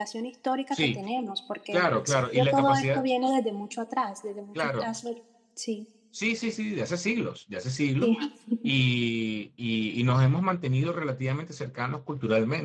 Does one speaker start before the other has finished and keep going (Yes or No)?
Yes